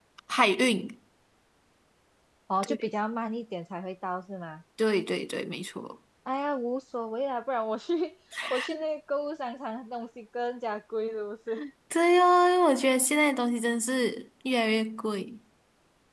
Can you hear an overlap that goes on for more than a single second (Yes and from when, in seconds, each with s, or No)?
No